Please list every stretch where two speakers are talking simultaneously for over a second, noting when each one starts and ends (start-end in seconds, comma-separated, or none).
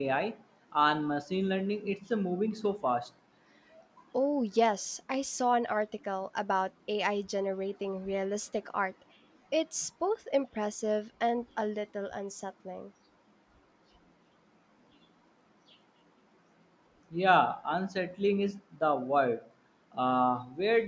none